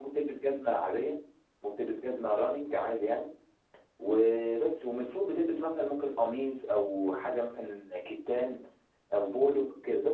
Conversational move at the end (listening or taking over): listening